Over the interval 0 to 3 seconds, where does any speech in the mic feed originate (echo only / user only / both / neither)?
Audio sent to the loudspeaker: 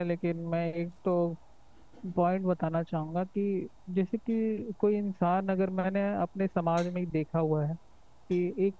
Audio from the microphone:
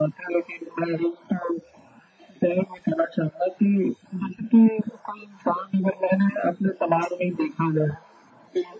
echo only